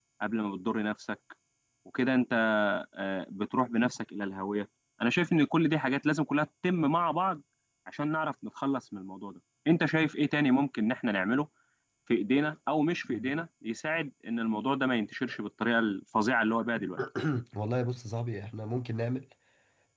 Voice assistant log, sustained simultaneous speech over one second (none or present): none